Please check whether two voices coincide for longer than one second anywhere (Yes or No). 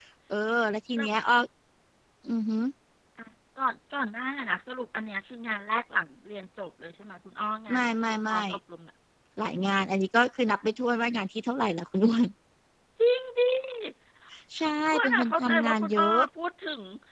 Yes